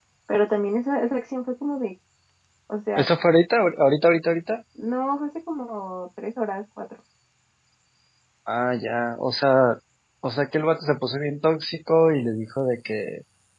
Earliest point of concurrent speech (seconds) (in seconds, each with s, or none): none